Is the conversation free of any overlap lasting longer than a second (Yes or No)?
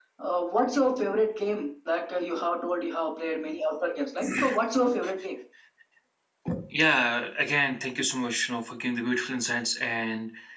Yes